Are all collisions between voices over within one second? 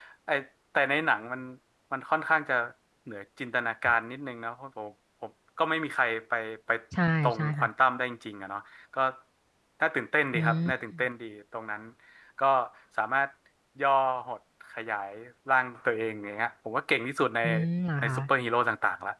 Yes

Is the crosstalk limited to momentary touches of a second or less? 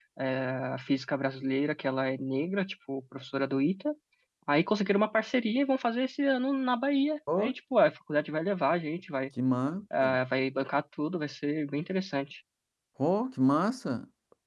Yes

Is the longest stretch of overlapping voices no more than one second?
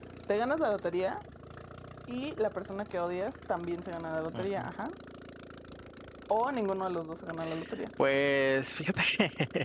Yes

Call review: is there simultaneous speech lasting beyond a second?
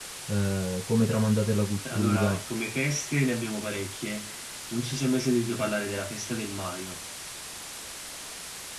No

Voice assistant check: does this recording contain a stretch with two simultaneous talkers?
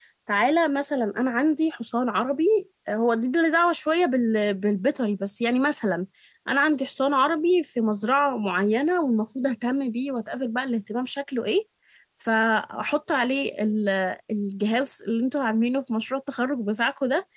No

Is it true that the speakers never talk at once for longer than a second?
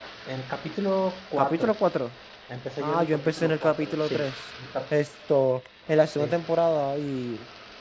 No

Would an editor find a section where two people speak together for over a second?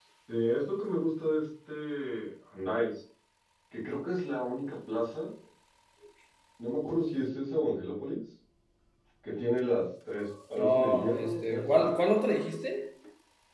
Yes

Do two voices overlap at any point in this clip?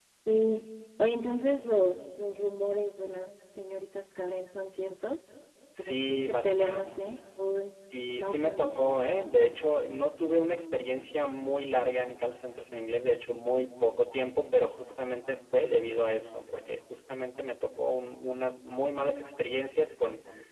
Yes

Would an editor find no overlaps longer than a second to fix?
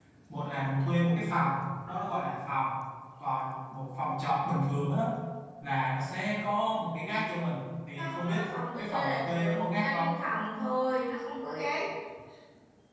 No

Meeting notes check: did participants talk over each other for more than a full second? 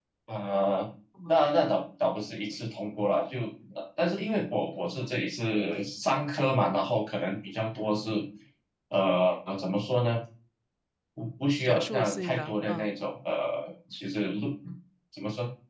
Yes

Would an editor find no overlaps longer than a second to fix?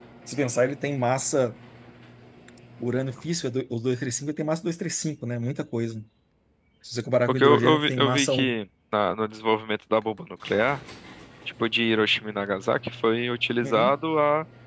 No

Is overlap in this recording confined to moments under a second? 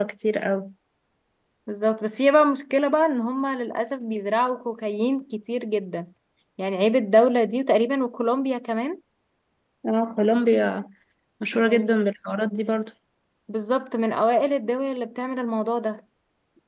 Yes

